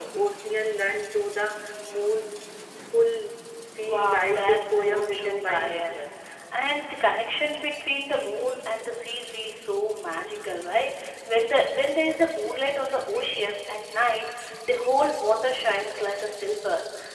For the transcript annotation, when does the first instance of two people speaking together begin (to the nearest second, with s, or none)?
4 s